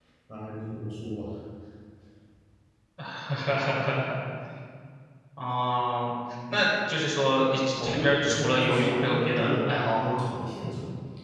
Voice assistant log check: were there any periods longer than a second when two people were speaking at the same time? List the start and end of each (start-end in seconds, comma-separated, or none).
7.8-10.2